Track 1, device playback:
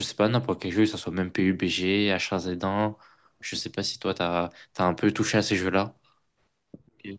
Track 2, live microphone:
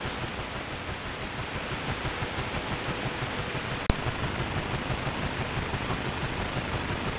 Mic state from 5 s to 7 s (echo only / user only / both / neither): neither